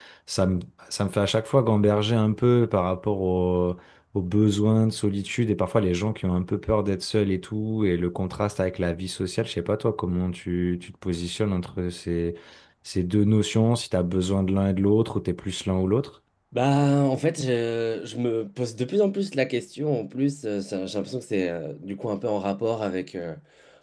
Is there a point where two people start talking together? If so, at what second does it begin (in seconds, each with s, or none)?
none